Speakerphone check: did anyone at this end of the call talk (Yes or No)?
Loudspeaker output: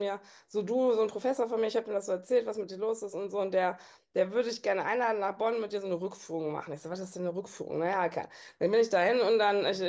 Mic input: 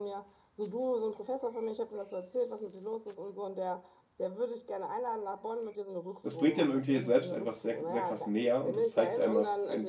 Yes